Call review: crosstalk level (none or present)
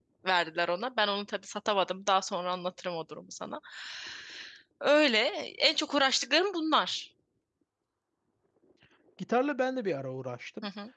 none